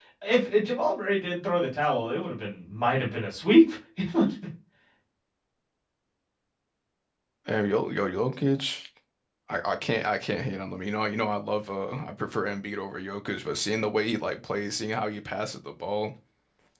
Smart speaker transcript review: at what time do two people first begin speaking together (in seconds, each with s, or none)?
none